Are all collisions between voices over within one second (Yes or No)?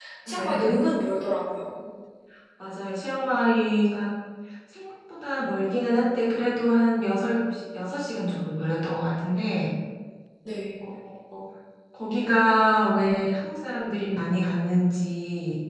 Yes